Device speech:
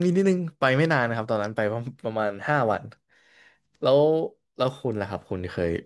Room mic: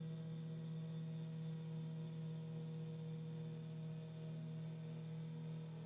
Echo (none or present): none